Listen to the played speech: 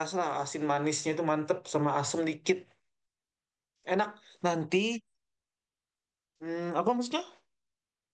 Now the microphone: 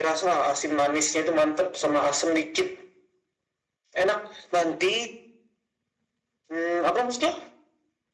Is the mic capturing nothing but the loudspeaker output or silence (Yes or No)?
Yes